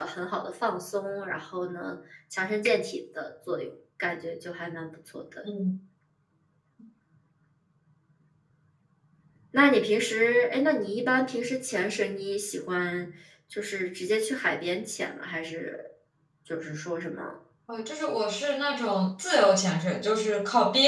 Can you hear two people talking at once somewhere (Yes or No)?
No